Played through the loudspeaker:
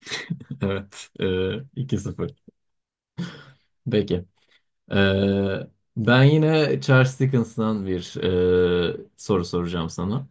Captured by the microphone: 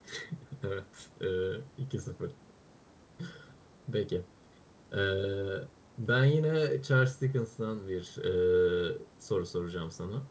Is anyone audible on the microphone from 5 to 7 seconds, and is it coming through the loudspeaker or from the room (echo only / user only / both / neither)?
echo only